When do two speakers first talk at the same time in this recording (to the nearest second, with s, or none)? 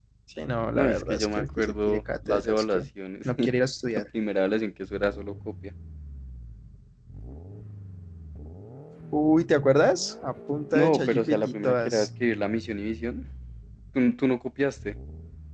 1 s